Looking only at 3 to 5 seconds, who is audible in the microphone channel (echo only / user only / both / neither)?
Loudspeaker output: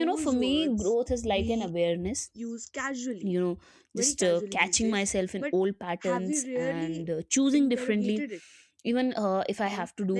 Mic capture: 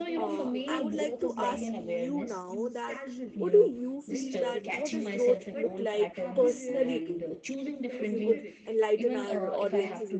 both